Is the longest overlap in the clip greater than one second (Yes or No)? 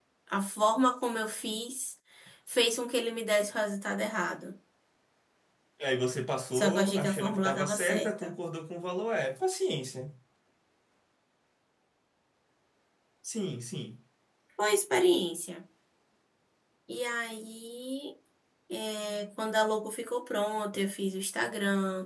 Yes